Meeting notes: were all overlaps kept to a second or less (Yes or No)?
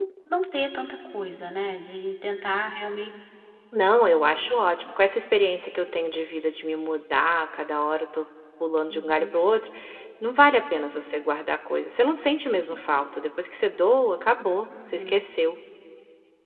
Yes